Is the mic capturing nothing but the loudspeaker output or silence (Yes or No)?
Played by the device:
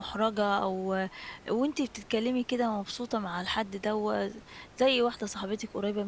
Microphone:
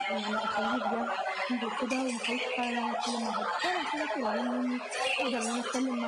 No